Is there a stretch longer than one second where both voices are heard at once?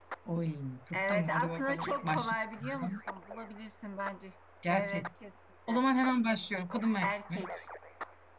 Yes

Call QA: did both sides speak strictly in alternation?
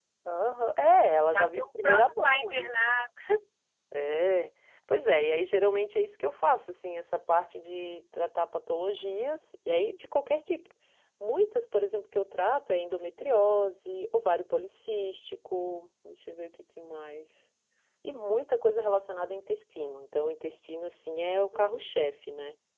No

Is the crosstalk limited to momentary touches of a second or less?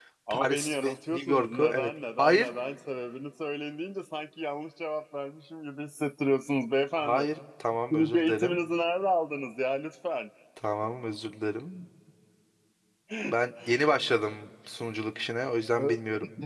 No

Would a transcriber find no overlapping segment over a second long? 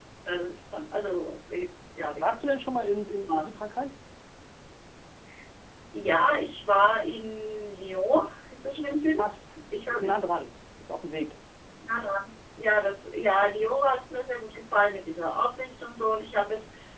Yes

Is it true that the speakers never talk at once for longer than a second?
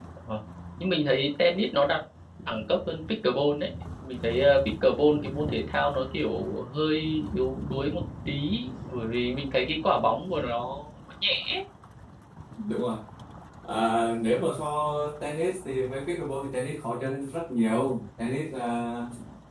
Yes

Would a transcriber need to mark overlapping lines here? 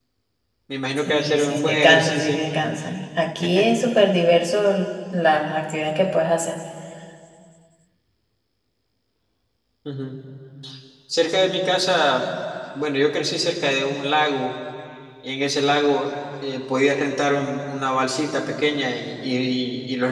Yes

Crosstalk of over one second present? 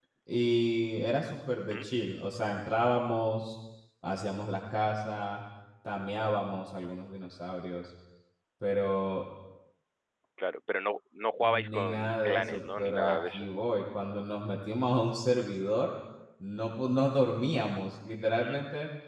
Yes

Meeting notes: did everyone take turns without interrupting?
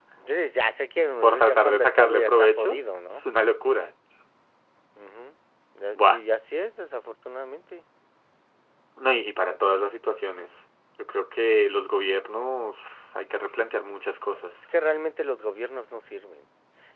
No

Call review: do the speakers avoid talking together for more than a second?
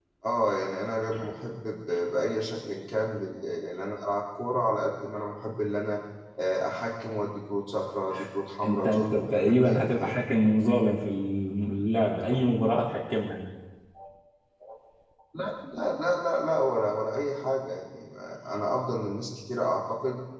No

